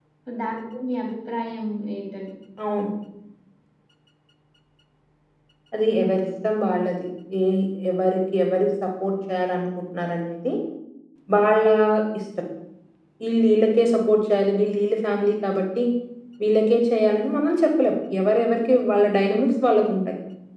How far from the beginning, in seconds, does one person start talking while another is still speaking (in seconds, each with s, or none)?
none